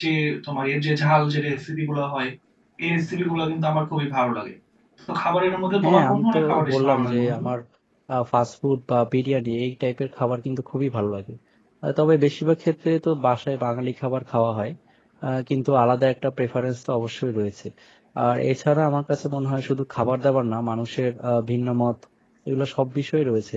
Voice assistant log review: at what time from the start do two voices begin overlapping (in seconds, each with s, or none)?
5.8 s